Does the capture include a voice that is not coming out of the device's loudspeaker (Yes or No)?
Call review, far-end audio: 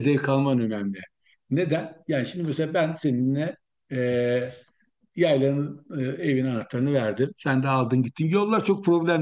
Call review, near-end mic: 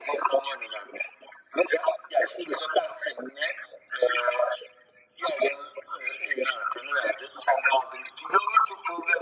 No